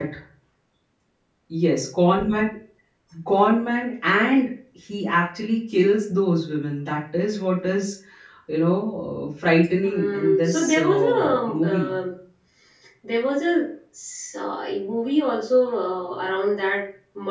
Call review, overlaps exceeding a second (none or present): present